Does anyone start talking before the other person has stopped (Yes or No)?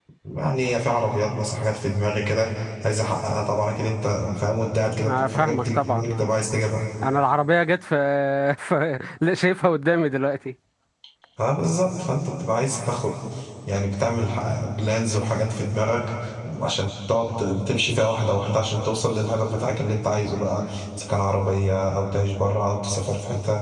Yes